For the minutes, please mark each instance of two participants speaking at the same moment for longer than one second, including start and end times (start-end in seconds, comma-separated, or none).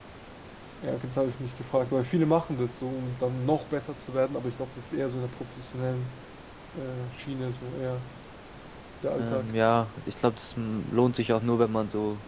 none